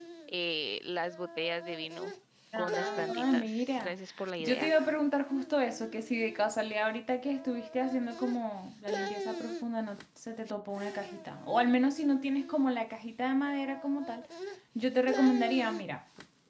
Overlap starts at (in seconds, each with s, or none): 2.6 s